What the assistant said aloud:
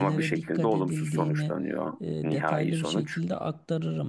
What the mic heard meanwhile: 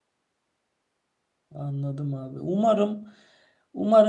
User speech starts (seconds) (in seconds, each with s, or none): 1.5 s